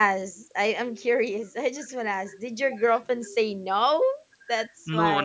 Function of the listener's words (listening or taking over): taking over